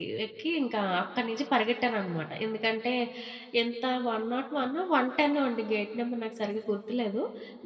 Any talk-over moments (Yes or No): No